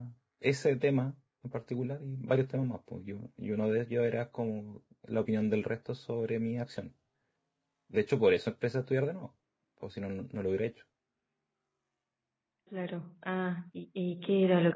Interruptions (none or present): none